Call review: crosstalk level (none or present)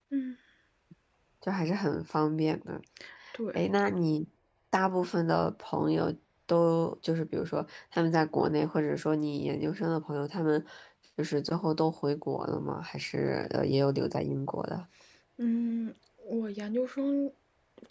none